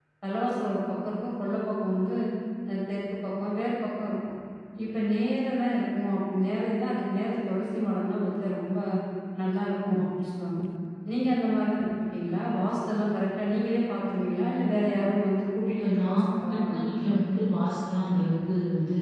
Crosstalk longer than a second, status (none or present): present